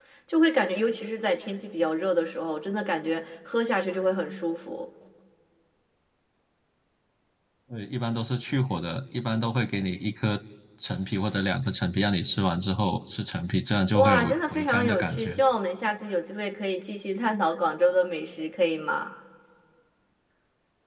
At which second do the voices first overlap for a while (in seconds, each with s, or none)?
13.9 s